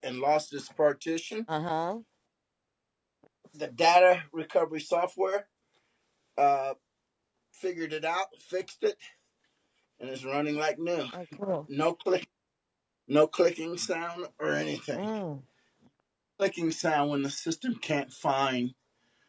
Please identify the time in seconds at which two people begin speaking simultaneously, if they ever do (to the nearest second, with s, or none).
none